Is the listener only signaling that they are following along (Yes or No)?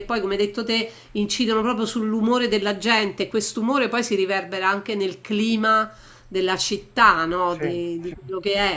Yes